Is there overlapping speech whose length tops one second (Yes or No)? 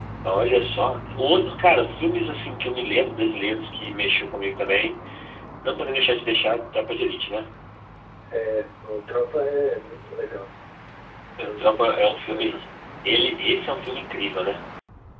Yes